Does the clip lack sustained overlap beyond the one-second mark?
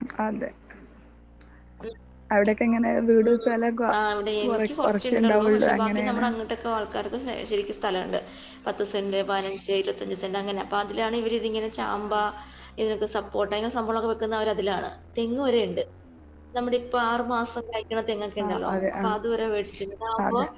No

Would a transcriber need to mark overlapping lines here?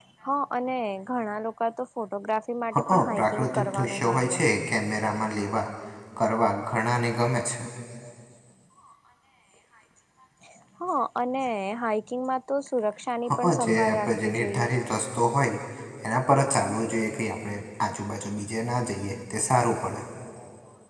Yes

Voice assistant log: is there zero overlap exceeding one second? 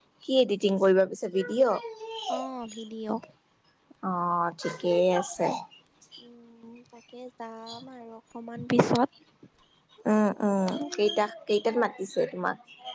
Yes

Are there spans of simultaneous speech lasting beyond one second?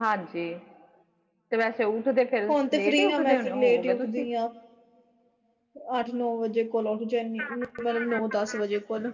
Yes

